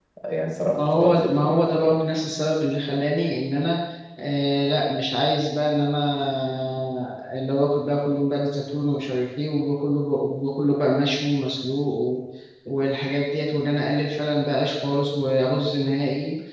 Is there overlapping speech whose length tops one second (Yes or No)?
Yes